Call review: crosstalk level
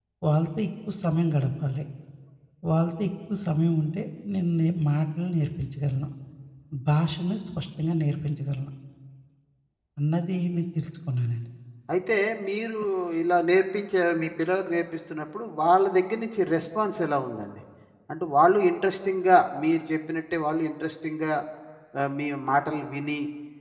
none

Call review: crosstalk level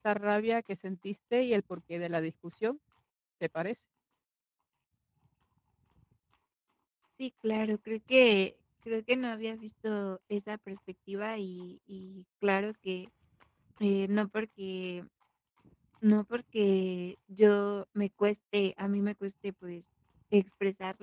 none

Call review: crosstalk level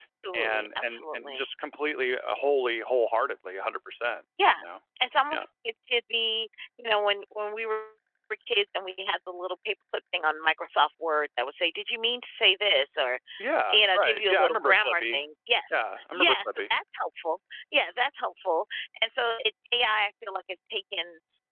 present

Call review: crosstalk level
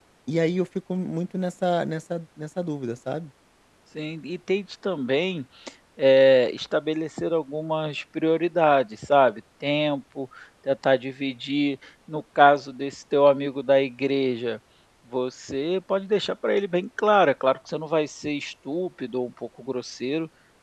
none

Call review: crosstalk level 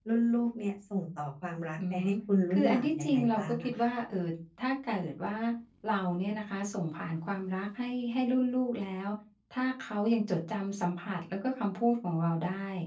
present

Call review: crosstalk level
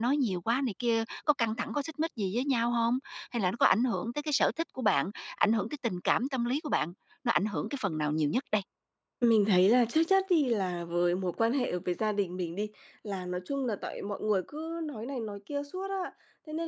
none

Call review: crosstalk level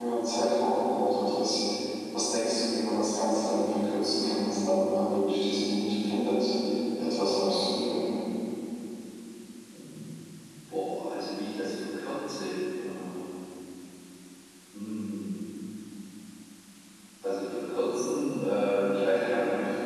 none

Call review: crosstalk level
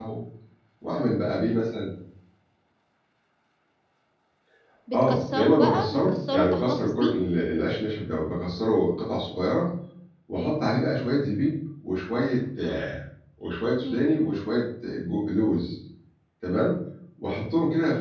present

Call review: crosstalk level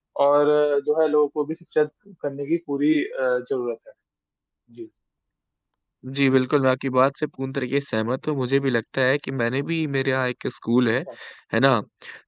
none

